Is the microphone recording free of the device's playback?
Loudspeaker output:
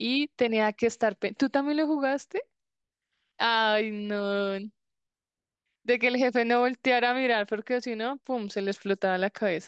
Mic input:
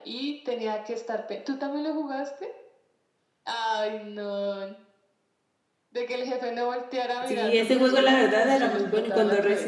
No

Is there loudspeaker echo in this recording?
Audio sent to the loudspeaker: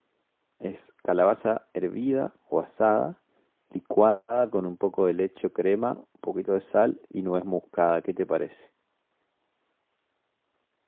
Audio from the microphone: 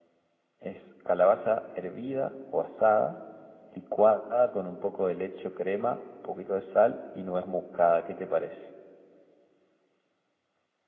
Yes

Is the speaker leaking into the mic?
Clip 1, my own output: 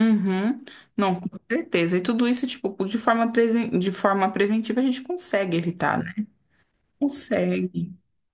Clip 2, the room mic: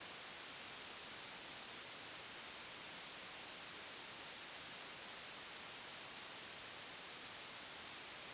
No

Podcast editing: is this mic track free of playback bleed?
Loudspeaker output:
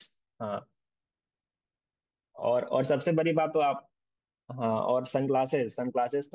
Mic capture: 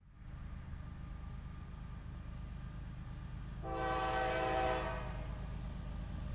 Yes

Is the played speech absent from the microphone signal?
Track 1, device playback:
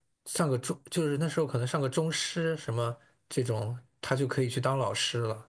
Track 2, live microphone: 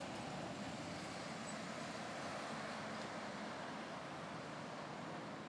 Yes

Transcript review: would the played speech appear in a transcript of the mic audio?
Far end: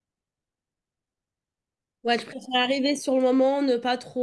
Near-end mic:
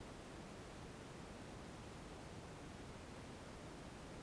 No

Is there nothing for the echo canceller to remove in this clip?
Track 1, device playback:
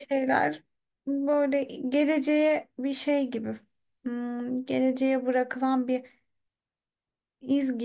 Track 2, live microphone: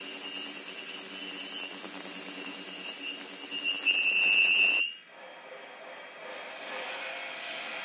Yes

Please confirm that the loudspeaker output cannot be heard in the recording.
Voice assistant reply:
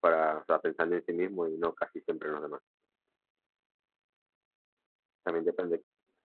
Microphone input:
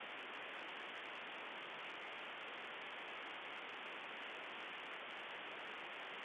Yes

